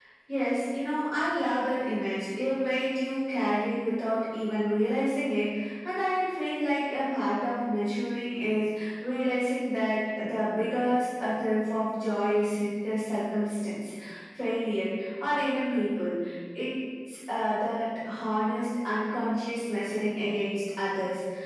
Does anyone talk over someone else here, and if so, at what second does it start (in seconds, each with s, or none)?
none